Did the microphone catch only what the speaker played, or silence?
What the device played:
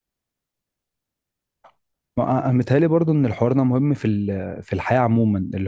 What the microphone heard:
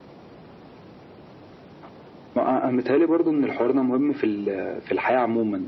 Yes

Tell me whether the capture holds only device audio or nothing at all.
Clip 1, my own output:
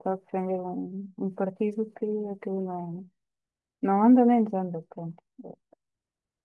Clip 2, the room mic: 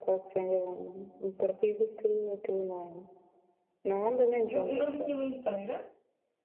No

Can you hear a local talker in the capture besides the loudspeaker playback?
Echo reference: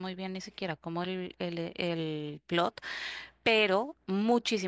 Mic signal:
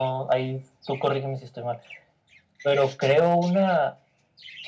Yes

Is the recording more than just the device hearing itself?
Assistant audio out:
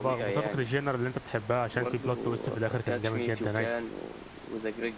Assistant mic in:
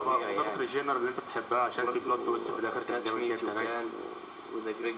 No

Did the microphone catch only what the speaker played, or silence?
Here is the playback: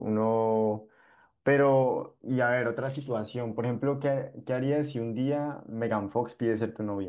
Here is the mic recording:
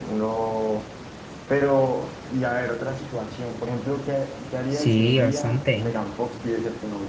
No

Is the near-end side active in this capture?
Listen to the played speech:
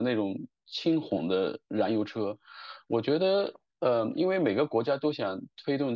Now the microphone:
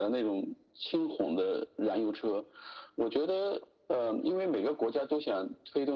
No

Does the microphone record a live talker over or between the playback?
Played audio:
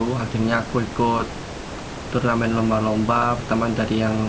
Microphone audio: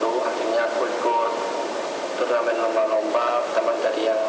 No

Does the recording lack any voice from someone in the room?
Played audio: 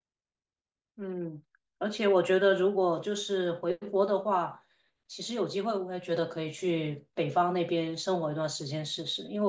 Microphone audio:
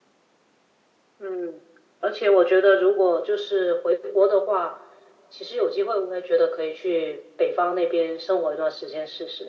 Yes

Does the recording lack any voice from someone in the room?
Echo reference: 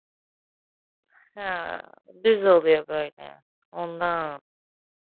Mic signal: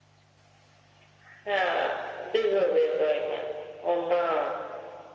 Yes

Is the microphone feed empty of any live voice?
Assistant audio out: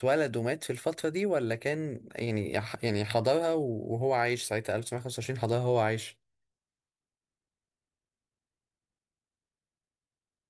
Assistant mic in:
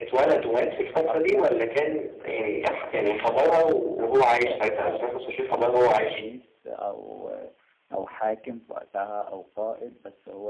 No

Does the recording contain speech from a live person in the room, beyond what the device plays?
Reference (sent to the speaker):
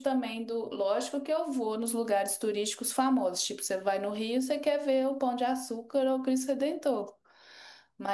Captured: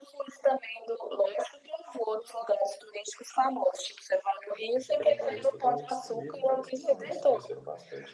Yes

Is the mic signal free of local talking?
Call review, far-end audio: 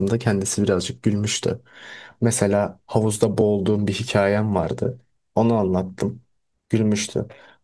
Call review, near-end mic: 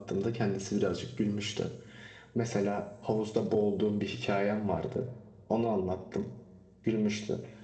Yes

